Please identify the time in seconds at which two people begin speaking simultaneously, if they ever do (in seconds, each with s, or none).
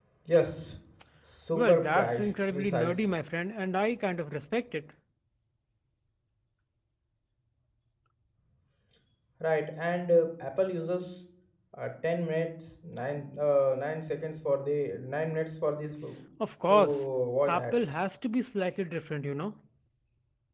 1.6 s